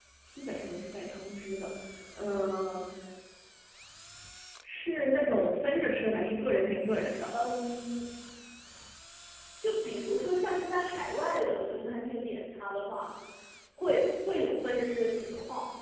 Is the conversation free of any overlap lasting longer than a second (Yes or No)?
Yes